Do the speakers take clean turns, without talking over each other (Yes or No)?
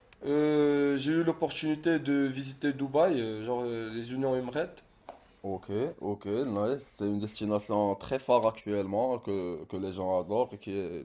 Yes